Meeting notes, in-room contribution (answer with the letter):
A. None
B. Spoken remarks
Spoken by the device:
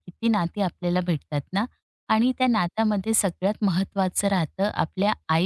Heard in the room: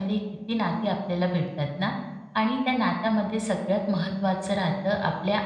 A